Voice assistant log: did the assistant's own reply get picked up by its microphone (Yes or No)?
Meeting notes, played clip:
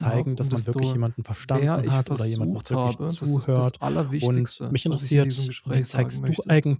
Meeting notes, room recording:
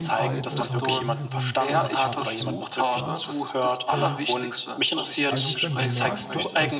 Yes